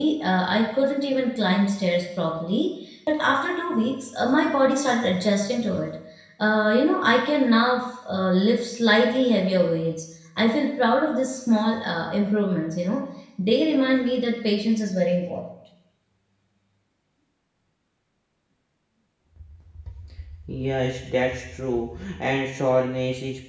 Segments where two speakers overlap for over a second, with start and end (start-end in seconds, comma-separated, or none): none